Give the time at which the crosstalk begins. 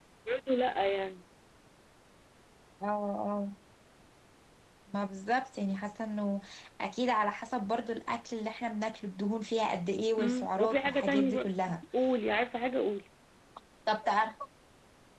10.2 s

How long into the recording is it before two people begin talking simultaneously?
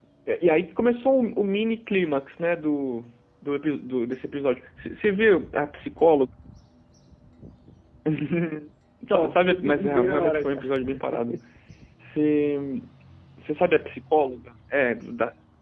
9.1 s

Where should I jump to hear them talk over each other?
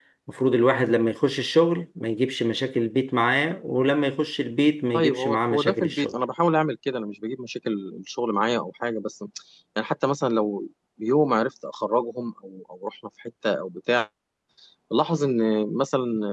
4.9 s

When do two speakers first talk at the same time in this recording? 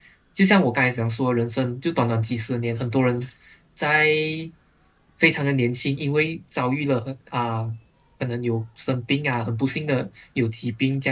none

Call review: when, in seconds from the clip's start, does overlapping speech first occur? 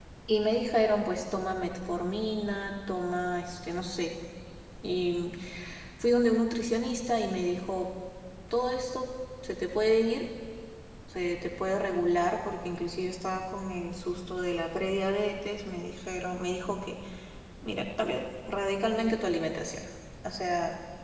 none

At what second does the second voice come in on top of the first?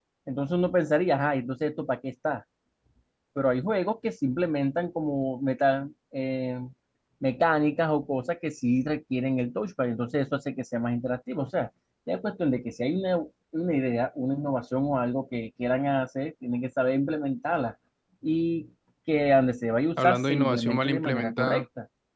20.0 s

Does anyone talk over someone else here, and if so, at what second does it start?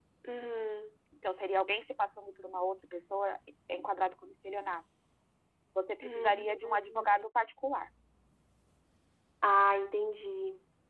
6.0 s

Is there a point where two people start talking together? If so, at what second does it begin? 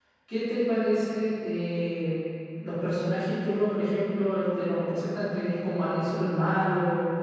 none

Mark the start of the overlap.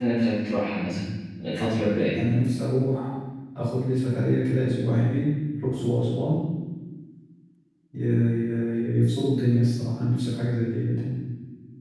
none

